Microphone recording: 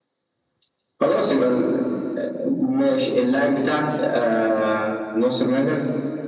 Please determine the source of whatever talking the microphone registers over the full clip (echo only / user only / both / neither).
echo only